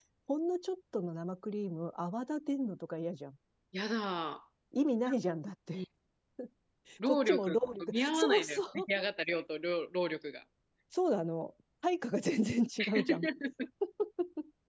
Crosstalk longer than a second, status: present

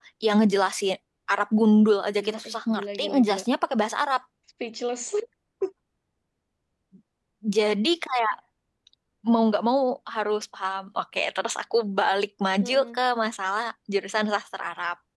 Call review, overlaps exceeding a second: present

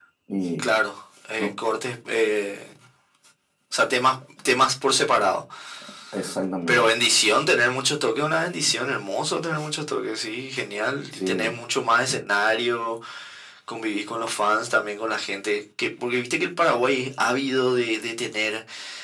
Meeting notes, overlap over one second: none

